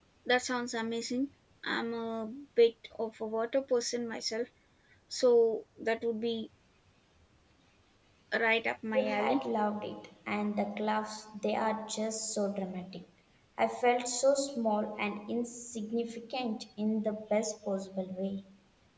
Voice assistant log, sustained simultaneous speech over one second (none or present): none